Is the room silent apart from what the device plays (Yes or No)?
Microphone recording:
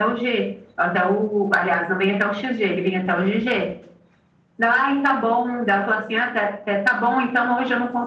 Yes